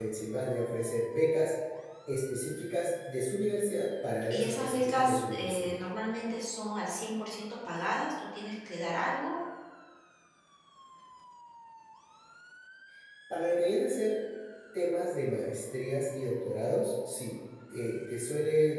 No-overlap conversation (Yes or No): No